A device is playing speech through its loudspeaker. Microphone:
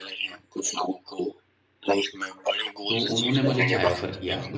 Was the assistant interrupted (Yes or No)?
Yes